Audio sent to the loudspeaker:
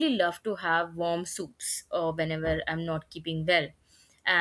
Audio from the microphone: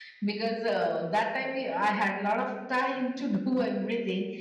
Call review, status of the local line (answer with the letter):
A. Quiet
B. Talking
B